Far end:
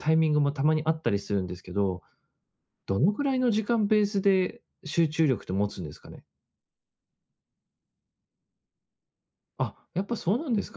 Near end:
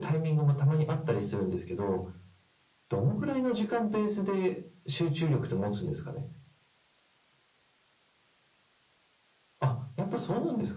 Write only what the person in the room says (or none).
none